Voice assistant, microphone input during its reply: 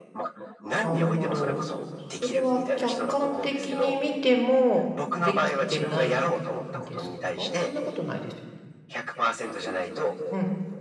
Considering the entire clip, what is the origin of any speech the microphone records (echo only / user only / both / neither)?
both